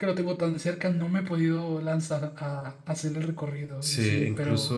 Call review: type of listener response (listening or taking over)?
taking over